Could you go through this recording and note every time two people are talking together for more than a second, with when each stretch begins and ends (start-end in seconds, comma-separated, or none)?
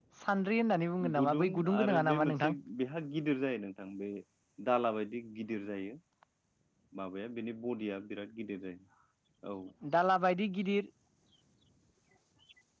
1.2-2.6